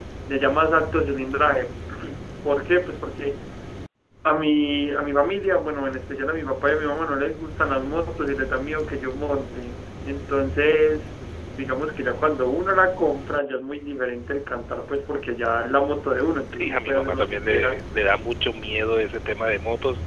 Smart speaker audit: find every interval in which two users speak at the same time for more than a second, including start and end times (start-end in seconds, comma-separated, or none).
16.6-17.8